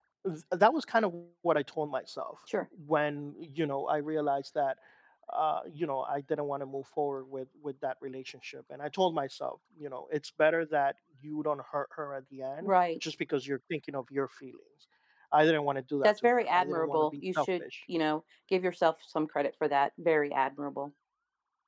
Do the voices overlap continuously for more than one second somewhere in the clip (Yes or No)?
Yes